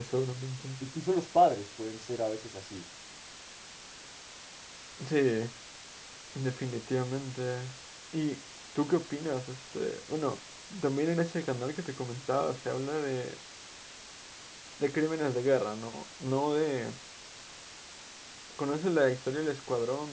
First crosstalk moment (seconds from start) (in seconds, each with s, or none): none